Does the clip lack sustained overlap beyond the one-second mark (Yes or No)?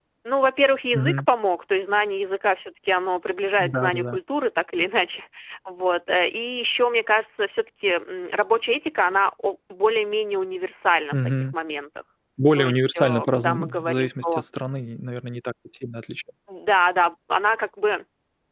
No